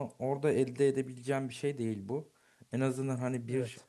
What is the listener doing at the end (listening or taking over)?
listening